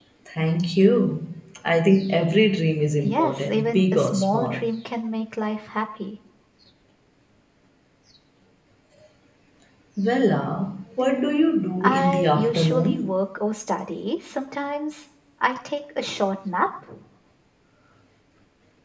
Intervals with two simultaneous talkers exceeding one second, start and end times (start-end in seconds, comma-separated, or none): 3.0-4.6, 11.8-13.2